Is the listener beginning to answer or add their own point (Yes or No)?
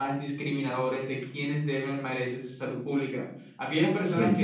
No